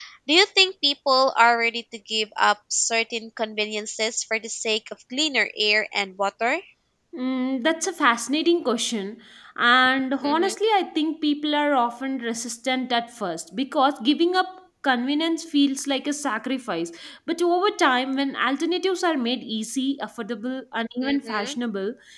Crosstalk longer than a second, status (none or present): none